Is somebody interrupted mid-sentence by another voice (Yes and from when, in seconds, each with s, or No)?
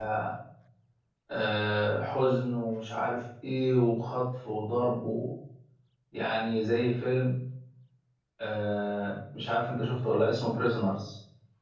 No